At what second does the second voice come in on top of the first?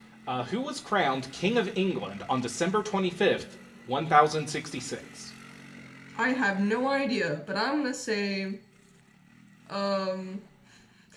none

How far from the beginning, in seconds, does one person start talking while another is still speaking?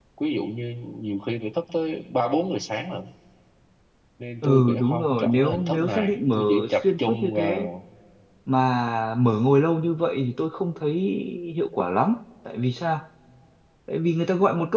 4.4 s

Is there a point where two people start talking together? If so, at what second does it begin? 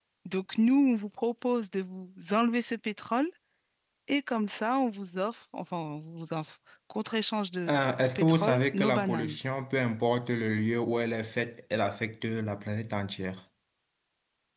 8.2 s

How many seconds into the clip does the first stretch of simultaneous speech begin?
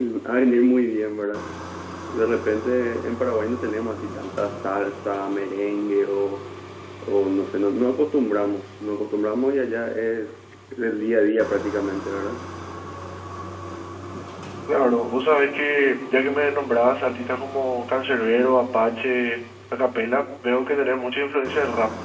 none

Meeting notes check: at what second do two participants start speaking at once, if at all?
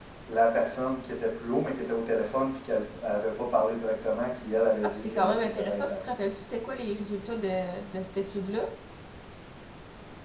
4.8 s

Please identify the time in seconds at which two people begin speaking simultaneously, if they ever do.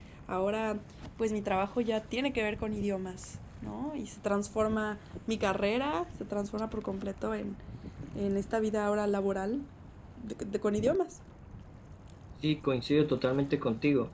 none

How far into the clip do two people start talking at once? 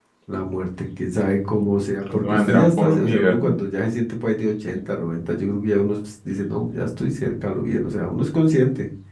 2.1 s

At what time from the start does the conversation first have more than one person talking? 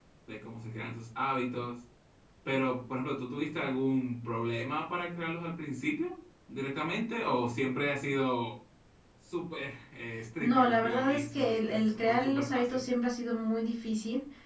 10.4 s

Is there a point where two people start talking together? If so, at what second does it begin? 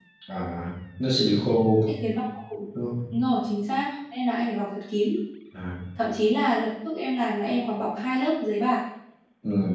none

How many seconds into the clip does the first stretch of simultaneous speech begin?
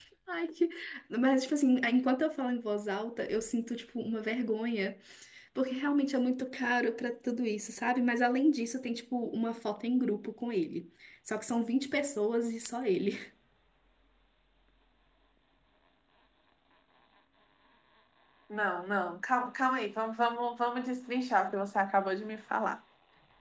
none

